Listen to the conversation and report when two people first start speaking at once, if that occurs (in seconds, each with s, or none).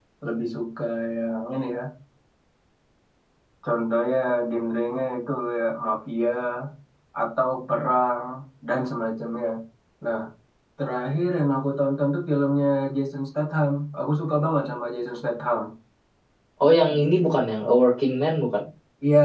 none